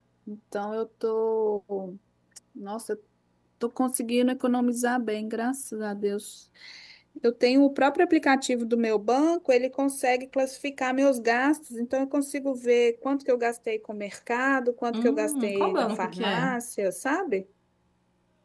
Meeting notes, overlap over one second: present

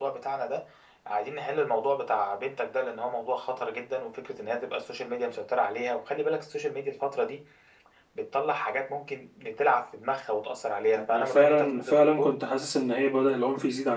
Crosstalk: present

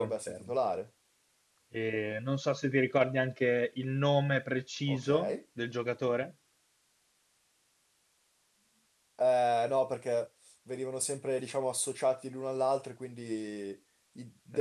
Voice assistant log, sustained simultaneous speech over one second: none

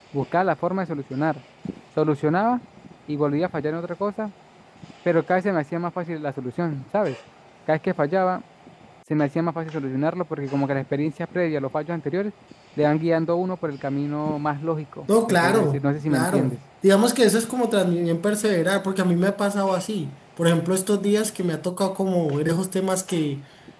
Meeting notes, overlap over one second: present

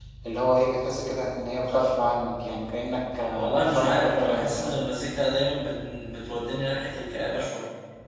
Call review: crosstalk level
present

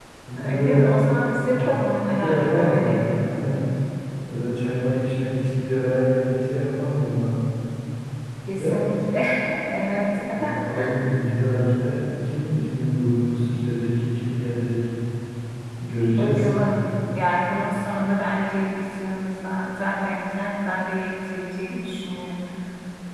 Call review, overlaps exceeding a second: present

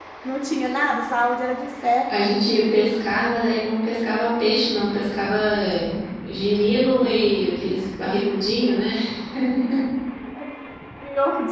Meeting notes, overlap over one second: none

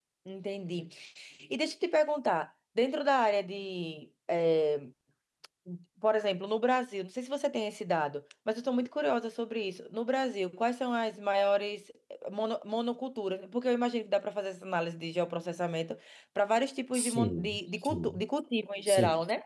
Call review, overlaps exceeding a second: present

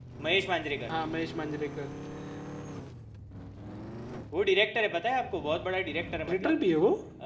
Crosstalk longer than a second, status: none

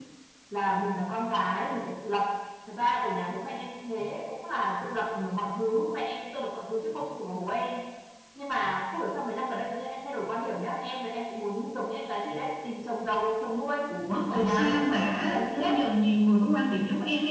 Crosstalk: present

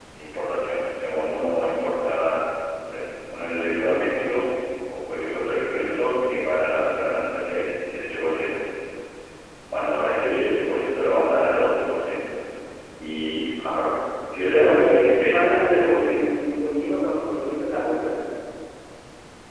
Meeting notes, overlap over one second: present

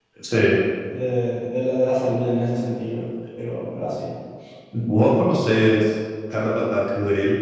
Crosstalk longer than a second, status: none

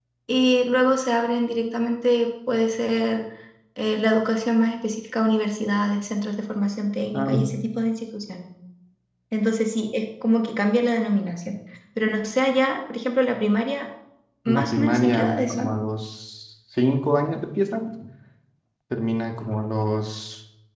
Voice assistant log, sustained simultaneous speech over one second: present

